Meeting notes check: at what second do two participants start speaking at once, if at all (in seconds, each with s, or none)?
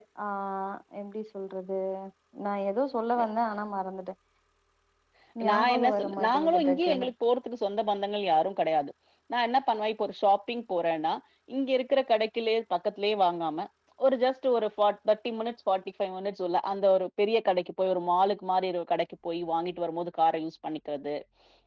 5.5 s